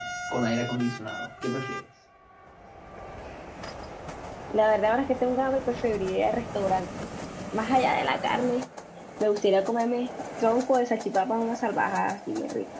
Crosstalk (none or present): none